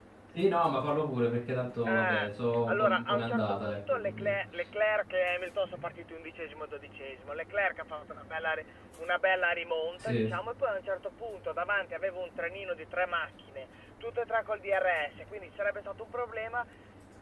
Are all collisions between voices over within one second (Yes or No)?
No